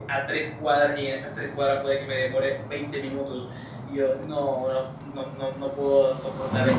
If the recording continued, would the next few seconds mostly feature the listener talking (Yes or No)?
Yes